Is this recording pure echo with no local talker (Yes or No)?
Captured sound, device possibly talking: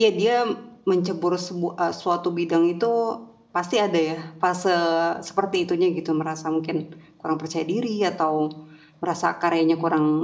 No